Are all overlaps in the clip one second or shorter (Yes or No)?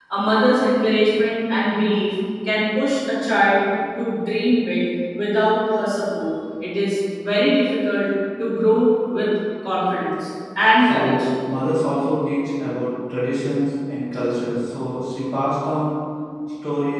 Yes